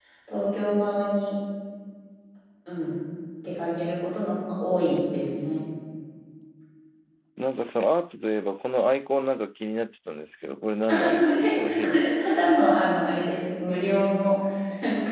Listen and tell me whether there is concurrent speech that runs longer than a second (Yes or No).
Yes